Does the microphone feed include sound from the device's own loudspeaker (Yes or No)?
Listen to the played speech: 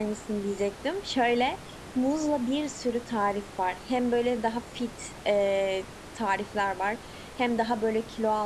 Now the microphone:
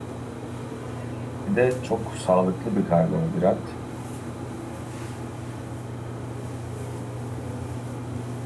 No